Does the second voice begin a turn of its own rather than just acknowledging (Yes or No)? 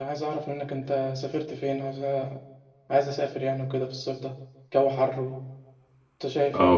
Yes